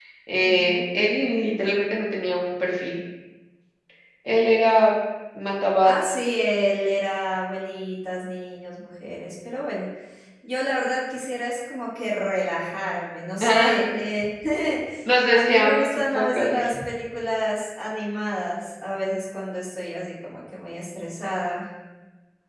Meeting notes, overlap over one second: present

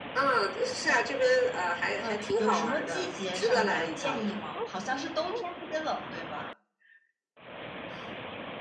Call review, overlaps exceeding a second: present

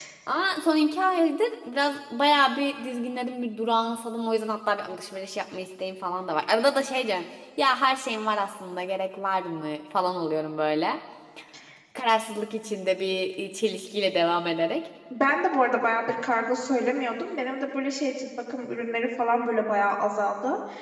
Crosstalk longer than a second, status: none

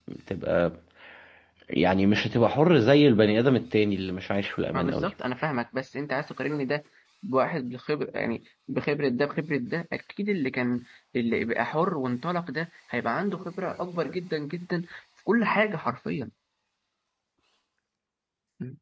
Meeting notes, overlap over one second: none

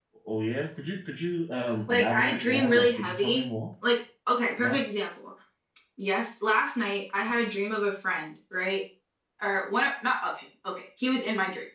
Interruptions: present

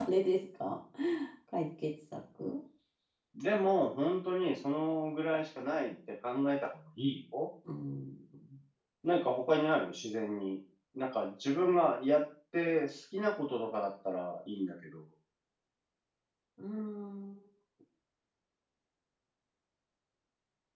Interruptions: none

